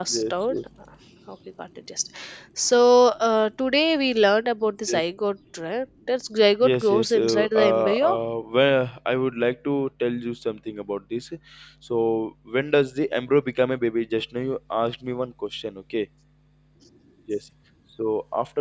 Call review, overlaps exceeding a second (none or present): present